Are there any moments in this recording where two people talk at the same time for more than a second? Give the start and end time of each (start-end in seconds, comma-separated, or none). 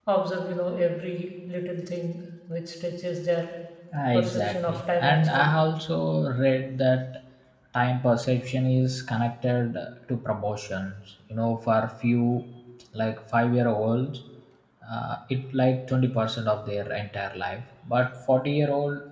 4.1-5.6